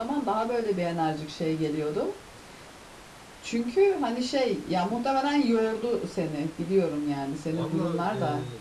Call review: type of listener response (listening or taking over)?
taking over